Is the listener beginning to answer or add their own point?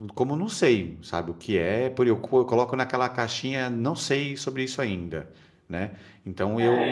Yes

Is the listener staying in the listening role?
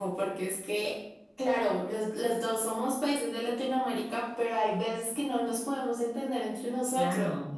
No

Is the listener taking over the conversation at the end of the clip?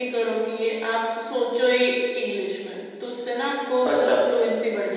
No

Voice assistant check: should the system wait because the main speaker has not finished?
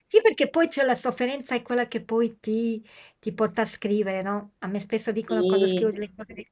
Yes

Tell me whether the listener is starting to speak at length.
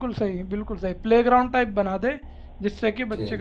No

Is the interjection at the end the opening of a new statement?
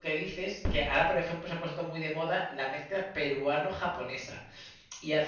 No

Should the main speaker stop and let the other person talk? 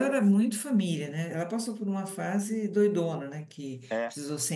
No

